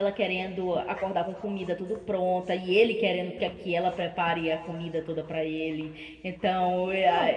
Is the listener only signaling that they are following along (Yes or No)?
No